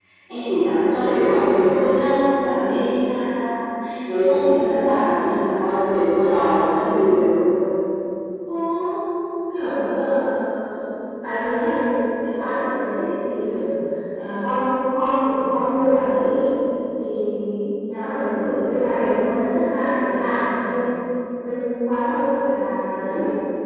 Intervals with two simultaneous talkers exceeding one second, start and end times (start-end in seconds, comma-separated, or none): none